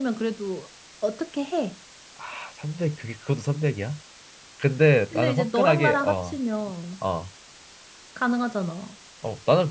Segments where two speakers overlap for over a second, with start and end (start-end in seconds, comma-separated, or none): 5.1-6.4